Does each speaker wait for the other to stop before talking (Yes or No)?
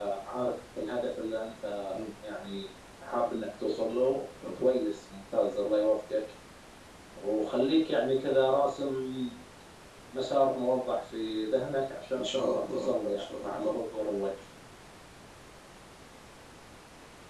No